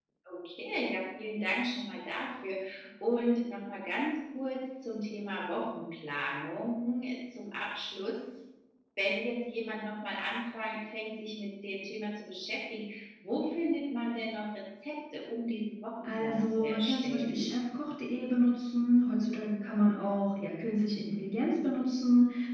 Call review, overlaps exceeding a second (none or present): present